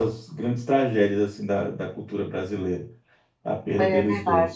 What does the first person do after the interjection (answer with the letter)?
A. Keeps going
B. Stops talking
B